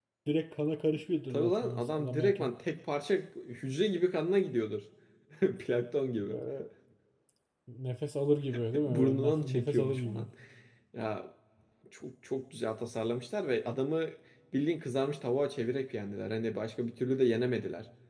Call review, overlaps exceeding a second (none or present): present